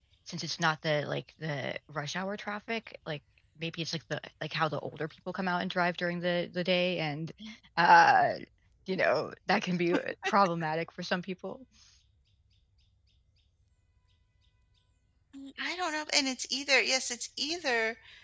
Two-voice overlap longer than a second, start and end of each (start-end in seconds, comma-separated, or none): none